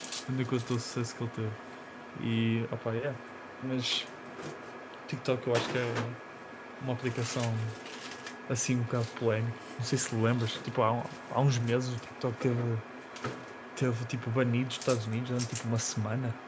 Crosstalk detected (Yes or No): No